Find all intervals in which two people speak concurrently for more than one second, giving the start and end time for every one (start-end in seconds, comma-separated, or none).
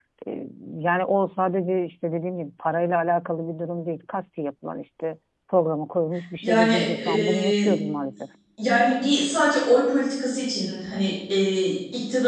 6.4-7.7